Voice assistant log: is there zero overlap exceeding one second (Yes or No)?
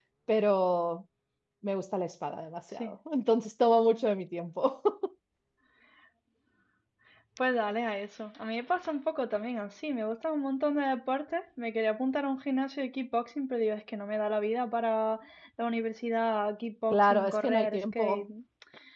No